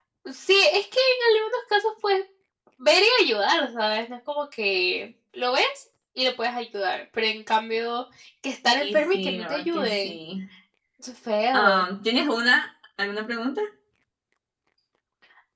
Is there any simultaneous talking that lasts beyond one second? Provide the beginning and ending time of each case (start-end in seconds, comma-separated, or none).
8.8-10.2